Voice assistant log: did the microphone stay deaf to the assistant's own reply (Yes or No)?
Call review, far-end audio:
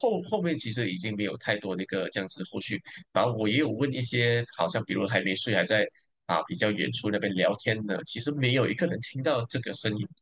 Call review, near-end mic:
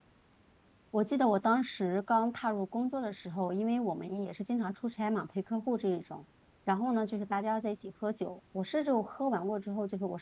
Yes